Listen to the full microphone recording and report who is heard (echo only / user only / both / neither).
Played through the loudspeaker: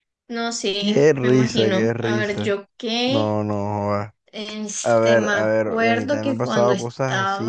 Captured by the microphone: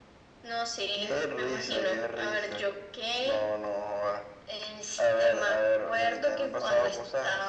echo only